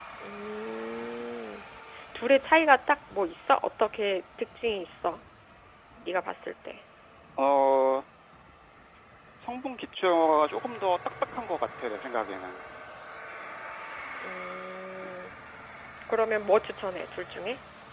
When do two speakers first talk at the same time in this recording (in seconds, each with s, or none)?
none